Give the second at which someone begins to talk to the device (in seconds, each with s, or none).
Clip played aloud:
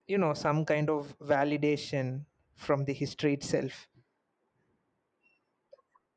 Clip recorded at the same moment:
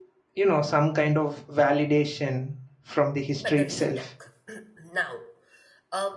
3.4 s